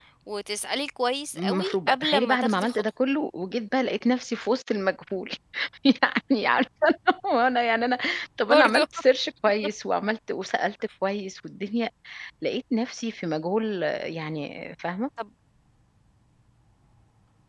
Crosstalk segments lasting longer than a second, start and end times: 1.4-2.8

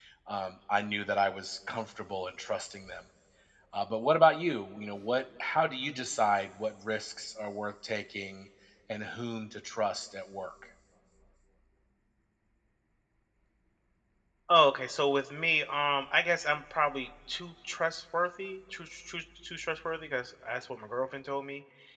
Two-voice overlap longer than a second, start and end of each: none

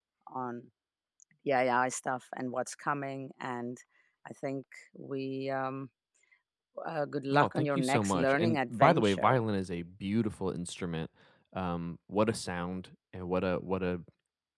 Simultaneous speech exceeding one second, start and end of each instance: 7.3-9.4

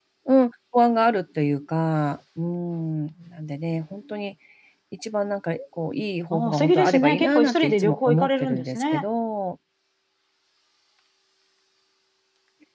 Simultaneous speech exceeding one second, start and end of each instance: 6.3-9.0

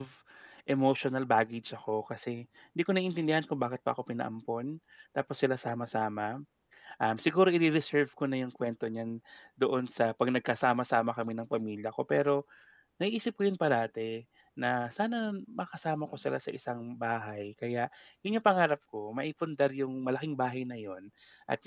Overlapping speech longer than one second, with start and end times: none

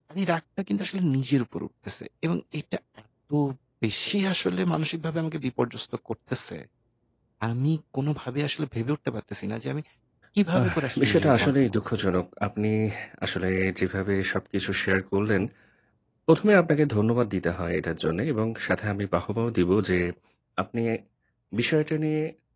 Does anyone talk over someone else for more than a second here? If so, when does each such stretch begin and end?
10.6-11.8

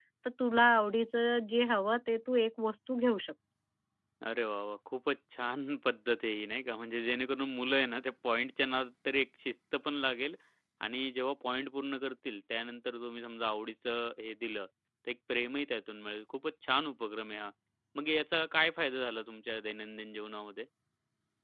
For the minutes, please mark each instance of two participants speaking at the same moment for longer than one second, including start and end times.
none

